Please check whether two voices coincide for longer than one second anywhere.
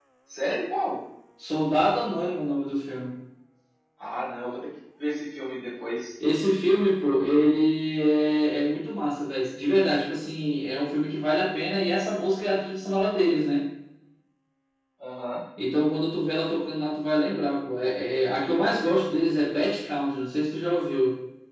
No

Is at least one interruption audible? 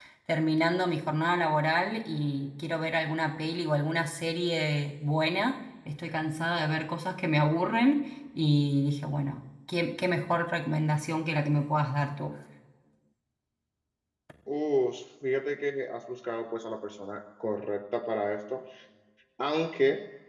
No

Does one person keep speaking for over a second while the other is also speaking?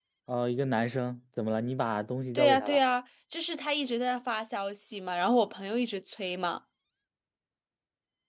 No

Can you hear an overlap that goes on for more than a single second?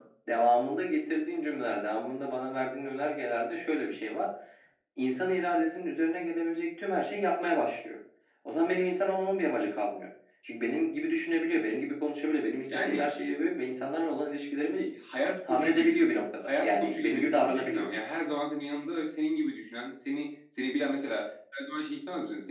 Yes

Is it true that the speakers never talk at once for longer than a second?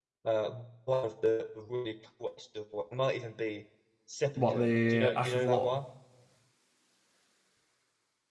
No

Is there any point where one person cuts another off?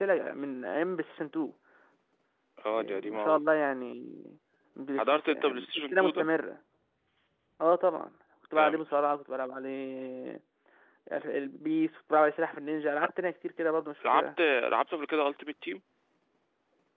Yes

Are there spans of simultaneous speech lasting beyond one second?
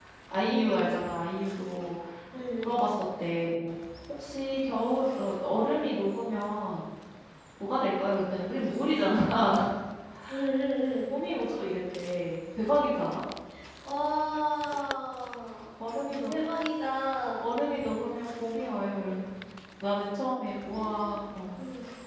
No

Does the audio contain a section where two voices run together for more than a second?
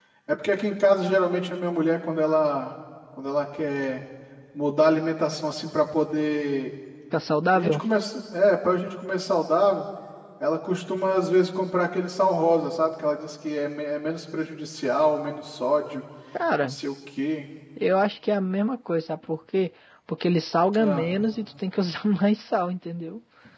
No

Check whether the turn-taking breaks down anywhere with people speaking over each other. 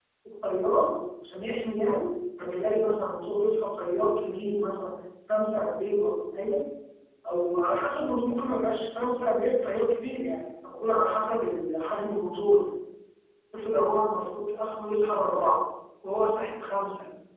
No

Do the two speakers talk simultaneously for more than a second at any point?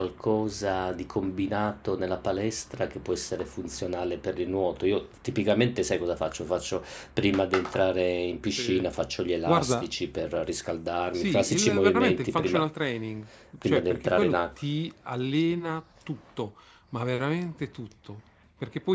Yes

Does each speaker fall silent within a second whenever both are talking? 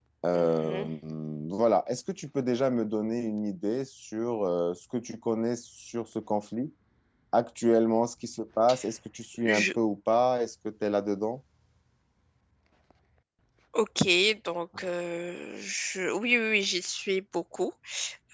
Yes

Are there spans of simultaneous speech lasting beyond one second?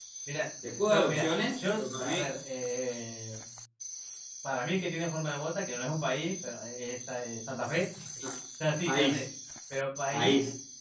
Yes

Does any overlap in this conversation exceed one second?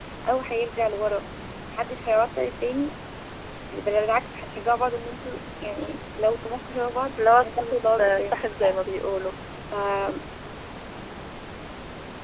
Yes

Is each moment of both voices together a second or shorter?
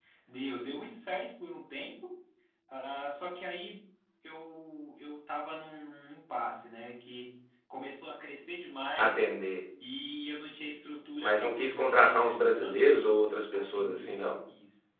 No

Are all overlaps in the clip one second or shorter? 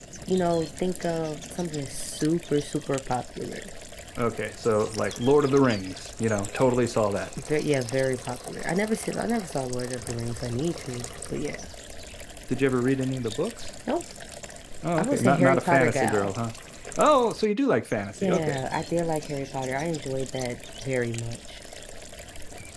No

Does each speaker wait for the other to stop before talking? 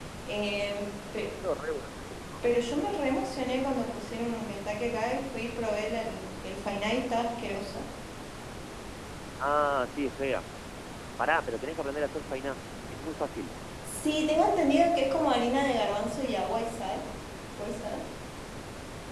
Yes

